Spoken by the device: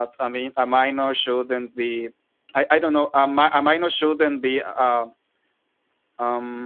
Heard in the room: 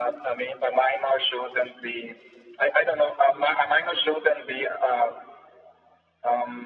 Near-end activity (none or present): none